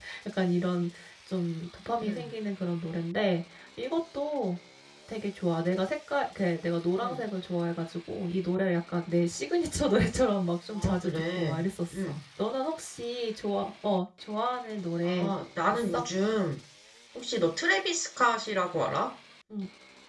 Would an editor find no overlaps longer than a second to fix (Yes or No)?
No